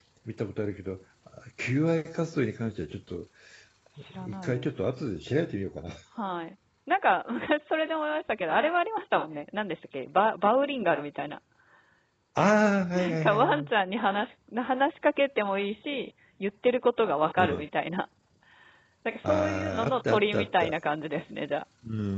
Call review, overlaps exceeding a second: present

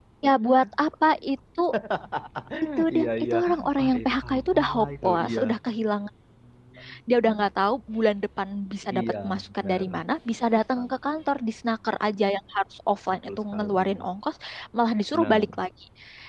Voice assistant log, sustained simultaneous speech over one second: present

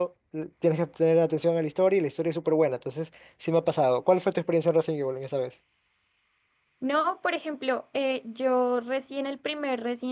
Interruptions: none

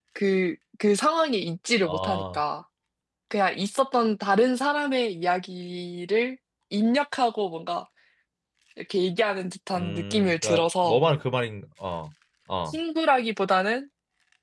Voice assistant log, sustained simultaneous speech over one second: present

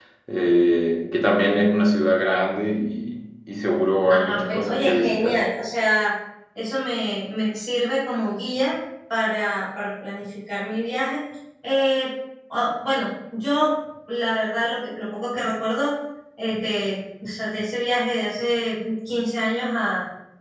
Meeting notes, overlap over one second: present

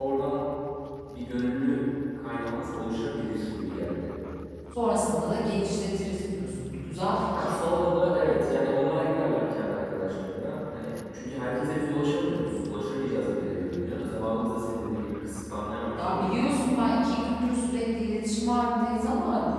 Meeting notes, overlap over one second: none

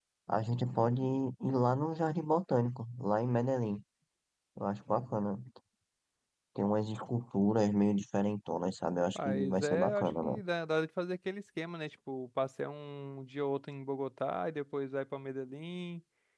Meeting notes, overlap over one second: present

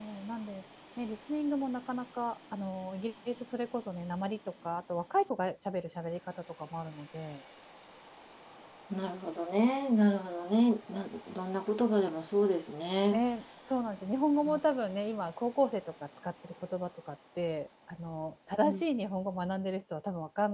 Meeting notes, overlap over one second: none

